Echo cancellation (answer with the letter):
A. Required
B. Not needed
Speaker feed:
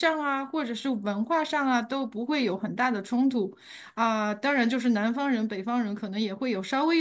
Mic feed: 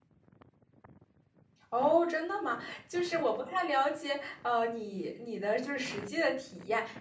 B